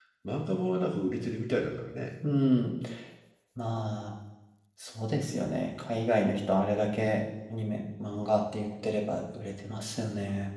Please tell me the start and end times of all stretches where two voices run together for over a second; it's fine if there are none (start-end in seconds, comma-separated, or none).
none